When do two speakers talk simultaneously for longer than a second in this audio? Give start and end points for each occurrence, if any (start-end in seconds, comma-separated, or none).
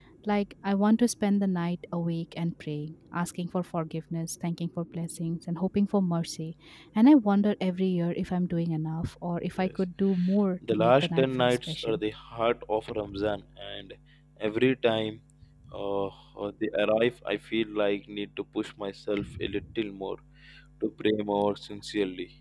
10.7-12.0